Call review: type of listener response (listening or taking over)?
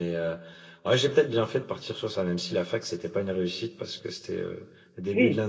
listening